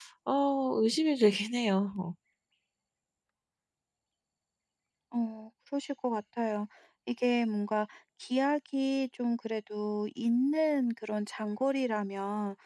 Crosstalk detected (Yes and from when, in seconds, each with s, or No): No